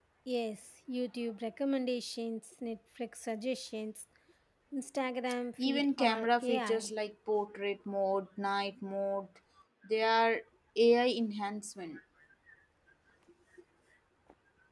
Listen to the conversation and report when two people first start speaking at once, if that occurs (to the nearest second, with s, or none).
6 s